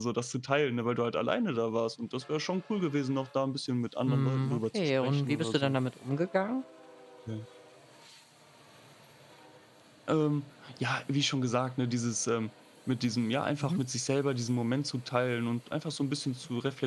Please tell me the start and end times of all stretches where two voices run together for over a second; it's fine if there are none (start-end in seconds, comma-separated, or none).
4.1-5.8